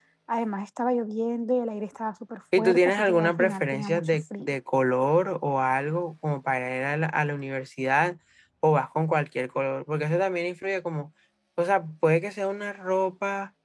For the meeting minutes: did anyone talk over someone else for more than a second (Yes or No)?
Yes